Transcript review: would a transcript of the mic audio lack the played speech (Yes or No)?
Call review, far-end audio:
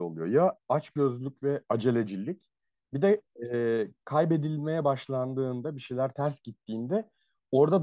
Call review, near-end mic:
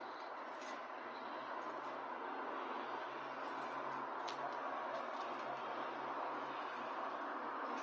Yes